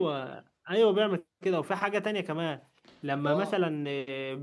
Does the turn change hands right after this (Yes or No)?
No